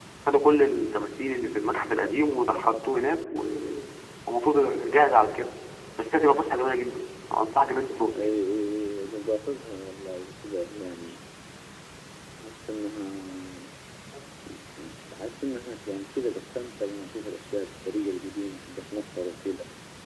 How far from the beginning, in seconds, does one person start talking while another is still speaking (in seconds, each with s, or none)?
none